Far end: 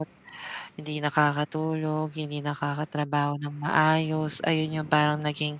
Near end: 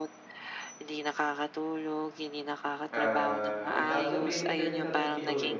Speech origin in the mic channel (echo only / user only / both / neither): both